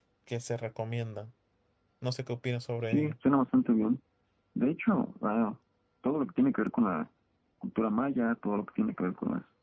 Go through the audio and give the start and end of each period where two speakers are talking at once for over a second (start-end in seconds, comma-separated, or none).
none